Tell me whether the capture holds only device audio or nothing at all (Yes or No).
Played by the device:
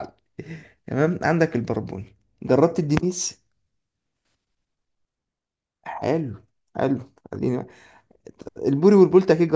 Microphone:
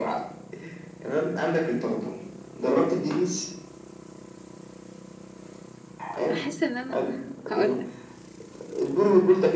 No